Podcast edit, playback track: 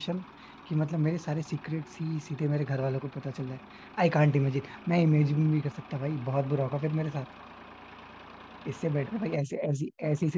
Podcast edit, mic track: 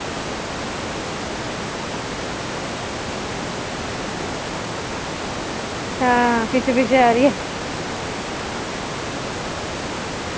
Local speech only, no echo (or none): हाँ पीछे पीछे आ रही है